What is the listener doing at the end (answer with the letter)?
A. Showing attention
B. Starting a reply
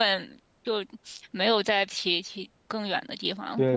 B